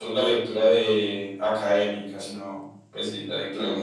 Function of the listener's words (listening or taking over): taking over